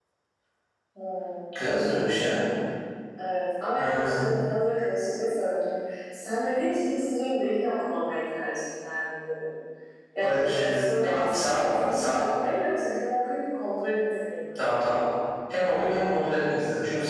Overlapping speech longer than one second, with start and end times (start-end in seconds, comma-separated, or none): 10.2-12.2